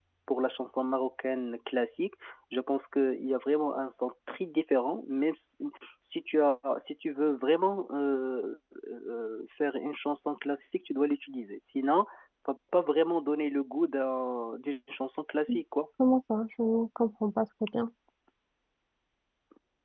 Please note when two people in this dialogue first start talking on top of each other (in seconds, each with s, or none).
none